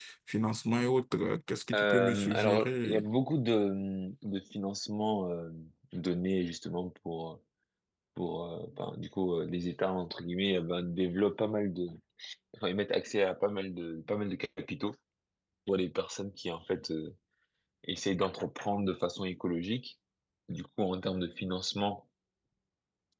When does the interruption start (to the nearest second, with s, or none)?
2 s